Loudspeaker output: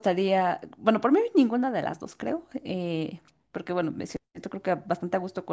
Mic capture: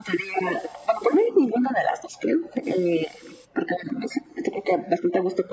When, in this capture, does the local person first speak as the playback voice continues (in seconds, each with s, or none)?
none